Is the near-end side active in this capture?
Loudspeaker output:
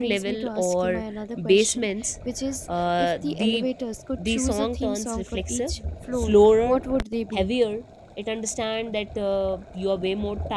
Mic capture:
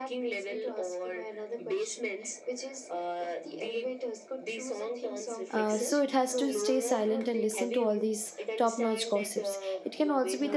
Yes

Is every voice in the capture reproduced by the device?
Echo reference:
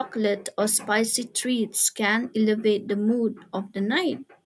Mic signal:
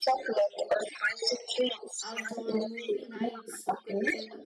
No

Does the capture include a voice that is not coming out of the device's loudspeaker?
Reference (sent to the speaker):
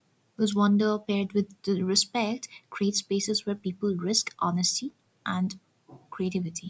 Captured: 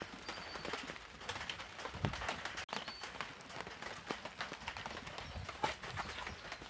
No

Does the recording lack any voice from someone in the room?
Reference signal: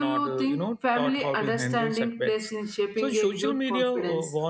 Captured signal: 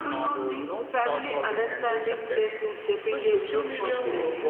Yes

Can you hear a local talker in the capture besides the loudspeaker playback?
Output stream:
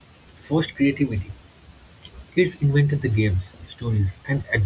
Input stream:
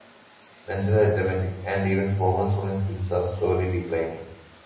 Yes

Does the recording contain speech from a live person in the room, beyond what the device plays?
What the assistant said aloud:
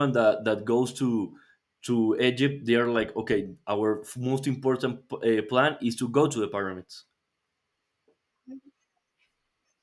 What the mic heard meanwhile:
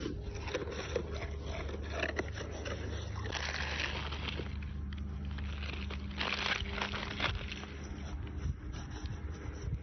No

